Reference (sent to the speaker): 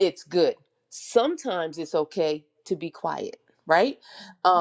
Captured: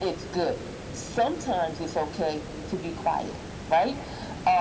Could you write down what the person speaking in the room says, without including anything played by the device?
none

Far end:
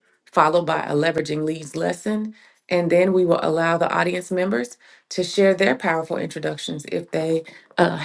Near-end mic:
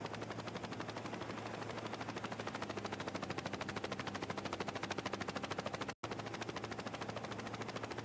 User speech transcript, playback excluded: none

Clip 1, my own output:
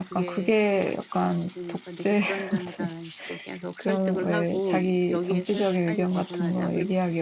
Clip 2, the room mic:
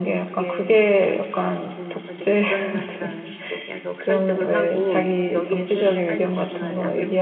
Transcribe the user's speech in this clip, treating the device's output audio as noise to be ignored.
none

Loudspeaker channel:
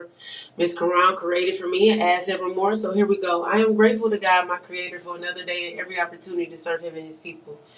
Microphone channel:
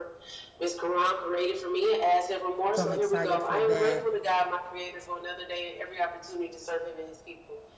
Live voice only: so I'm excited for that.

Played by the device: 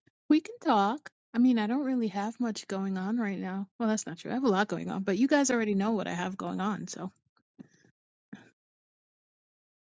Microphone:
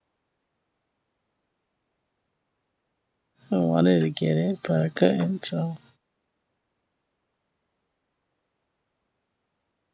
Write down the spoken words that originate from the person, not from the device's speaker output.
I wanted to get it, but I couldn't. So

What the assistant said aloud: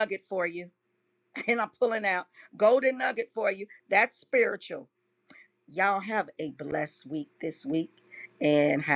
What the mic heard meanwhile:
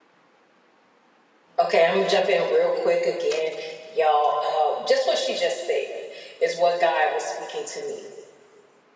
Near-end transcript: Okay, I'm gonna jump in real quick again, y'all. Uh, just what she just said is what God was speaking to me,

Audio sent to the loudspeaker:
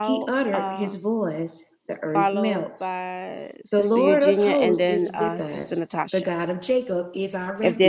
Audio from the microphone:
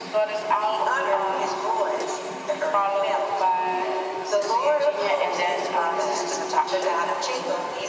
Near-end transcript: none

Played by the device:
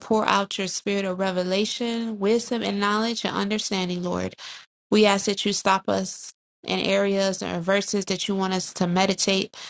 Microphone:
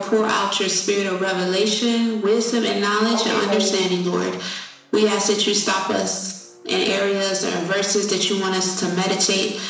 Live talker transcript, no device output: Okay, cousin.

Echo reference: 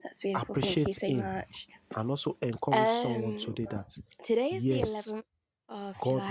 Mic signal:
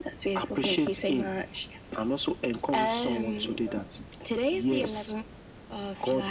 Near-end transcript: none

